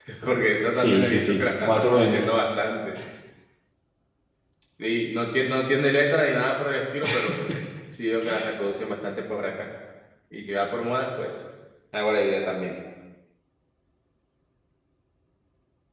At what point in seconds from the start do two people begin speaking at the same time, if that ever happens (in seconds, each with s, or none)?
0.7 s